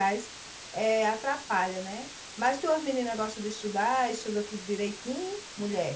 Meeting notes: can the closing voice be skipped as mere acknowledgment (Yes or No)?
No